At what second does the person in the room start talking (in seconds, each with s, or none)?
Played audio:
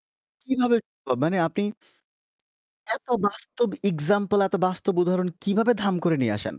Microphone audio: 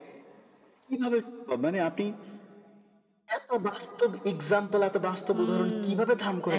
5.3 s